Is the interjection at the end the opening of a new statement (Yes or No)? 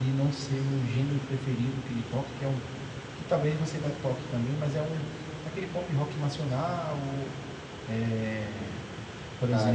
Yes